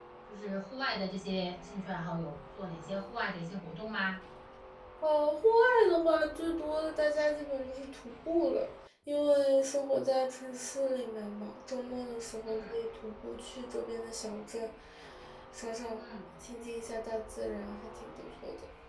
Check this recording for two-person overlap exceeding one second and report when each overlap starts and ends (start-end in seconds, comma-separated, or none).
none